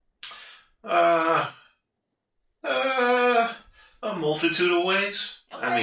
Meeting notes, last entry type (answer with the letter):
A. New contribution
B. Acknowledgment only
B